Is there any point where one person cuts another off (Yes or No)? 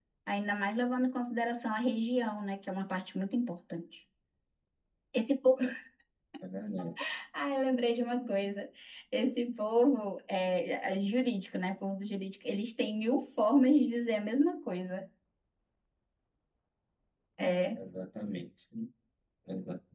No